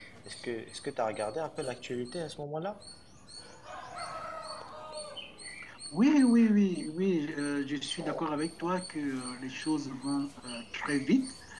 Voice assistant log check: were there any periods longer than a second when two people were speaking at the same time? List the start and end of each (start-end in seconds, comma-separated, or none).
none